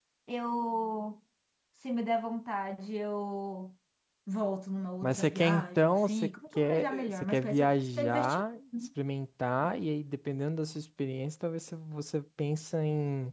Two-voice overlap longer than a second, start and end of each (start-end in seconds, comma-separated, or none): 5.0-8.4